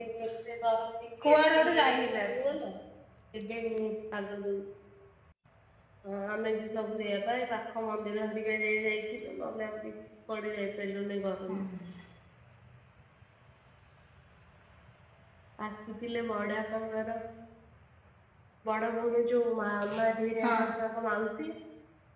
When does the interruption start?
1.2 s

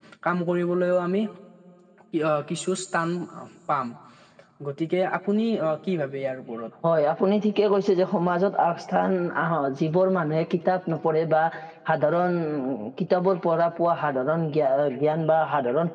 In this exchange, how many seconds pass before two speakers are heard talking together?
none

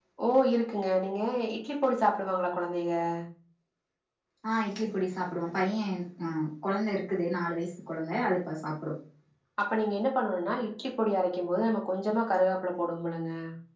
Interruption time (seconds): none

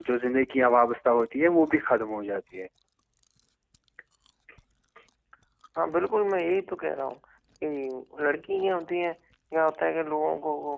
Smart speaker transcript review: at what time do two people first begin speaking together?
none

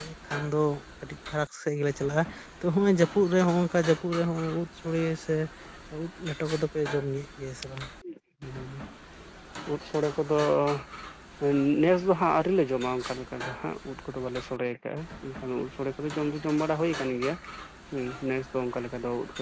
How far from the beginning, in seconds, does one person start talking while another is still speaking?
none

